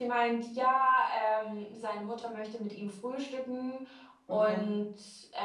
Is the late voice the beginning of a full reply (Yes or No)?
No